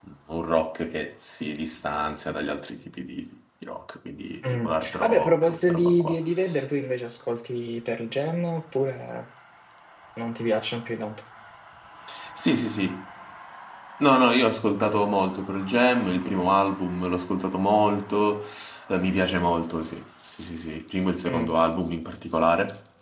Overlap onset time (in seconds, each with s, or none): 4.5 s